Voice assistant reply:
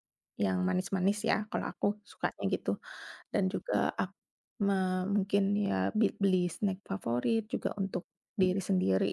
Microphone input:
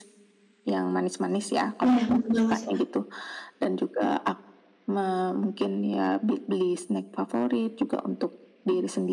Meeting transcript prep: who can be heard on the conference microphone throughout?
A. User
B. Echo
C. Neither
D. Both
D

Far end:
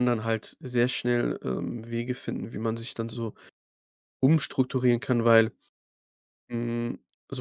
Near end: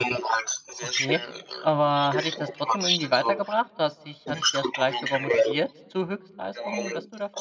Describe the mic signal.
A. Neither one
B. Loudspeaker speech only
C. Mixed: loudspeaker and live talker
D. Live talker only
C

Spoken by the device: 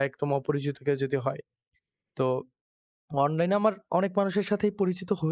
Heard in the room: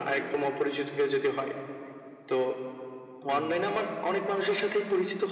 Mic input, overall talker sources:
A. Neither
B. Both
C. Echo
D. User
B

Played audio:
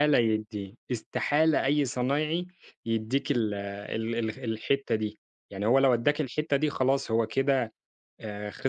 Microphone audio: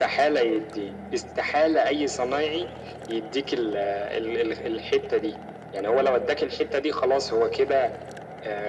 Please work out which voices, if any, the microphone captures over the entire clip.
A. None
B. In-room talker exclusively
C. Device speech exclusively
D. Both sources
C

